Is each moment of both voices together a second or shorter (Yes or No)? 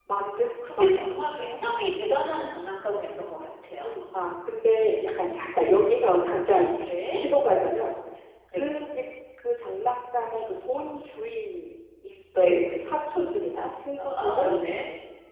Yes